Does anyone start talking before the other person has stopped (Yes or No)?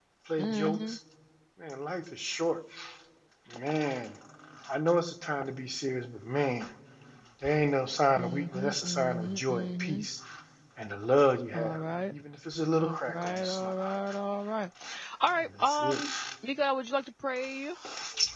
Yes